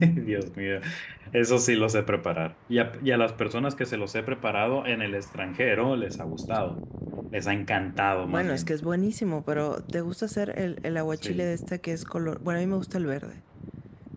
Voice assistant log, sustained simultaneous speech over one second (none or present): none